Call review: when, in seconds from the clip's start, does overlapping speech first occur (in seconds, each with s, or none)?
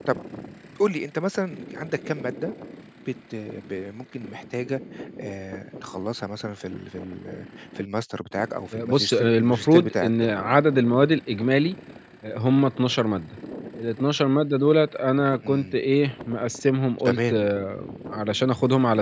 8.7 s